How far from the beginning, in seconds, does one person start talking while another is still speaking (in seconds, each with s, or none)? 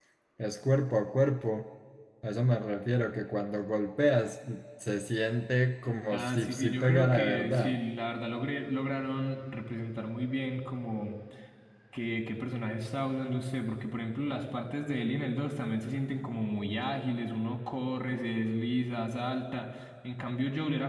6.1 s